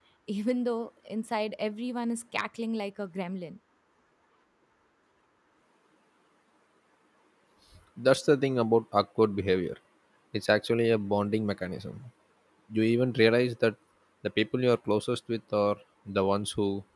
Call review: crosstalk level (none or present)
none